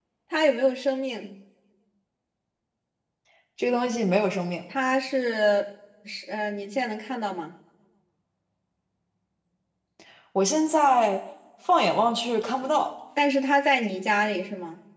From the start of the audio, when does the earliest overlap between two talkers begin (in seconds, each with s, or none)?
none